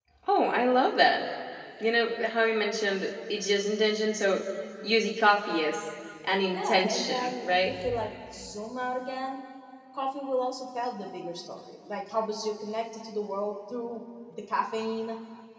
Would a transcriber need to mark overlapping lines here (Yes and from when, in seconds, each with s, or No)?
Yes, from 6.5 s